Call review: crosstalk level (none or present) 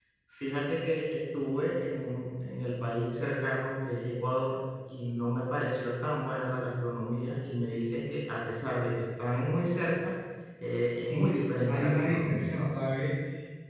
present